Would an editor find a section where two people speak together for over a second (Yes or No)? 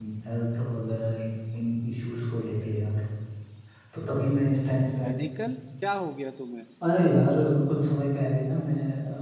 No